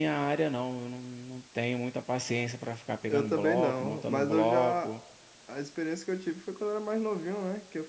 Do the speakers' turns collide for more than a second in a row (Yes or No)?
Yes